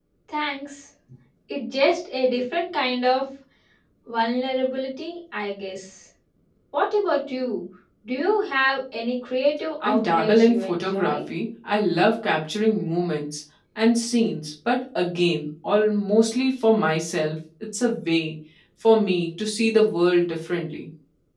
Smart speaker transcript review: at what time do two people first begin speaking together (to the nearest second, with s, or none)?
10 s